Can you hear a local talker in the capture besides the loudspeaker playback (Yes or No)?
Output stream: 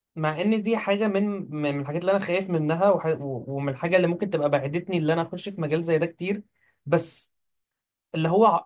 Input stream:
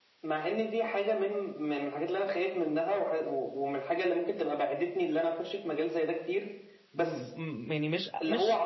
Yes